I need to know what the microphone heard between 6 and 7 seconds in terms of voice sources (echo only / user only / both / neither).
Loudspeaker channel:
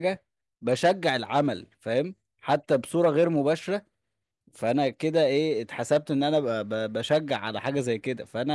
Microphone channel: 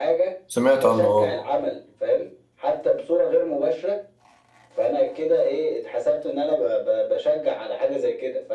echo only